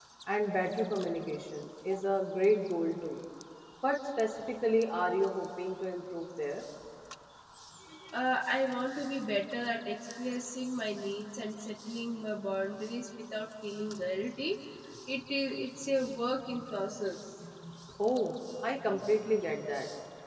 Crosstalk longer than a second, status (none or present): none